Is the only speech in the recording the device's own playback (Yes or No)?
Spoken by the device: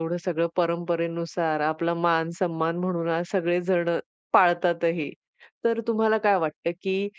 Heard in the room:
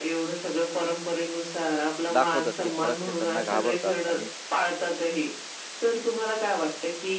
No